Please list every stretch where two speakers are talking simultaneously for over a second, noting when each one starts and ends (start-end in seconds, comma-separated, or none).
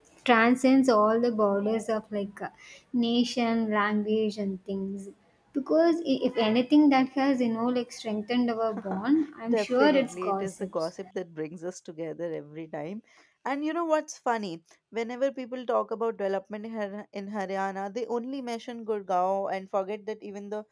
9.5-10.7